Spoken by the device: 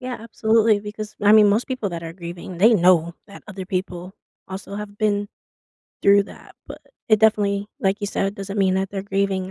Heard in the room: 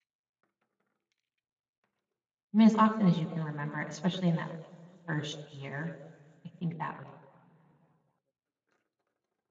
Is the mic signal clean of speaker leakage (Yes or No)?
Yes